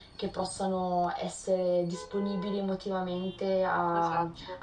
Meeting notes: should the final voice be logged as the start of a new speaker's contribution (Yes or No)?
No